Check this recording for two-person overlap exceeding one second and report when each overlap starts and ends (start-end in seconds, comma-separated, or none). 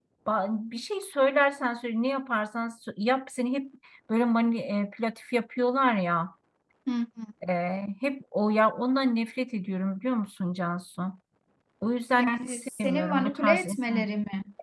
12.2-14.1